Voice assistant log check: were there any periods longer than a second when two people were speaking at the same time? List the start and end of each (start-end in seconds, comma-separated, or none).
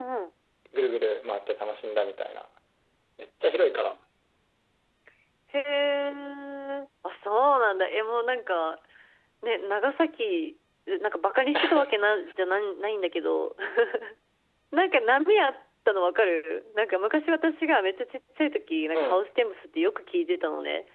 none